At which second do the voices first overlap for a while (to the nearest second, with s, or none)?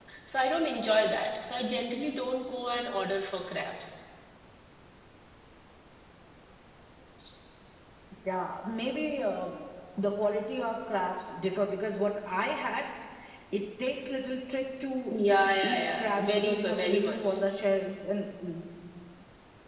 16 s